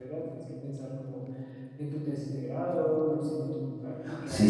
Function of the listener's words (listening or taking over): taking over